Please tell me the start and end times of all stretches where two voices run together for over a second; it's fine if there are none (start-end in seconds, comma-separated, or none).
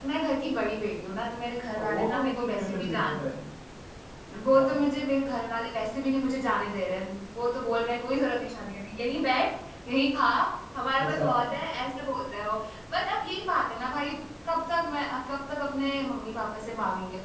1.7-3.2